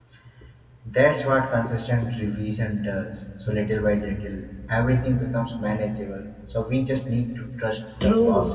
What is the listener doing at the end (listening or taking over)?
taking over